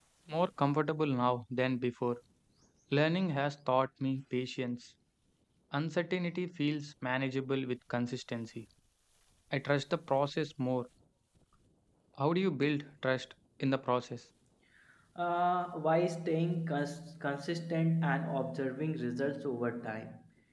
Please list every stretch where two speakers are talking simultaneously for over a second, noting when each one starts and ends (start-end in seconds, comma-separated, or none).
none